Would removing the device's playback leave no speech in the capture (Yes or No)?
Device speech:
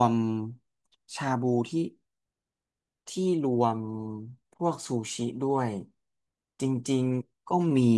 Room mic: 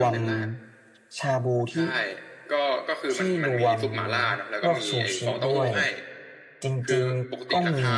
No